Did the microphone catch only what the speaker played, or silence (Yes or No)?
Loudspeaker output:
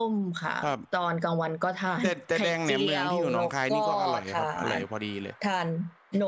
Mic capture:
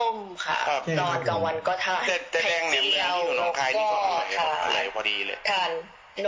No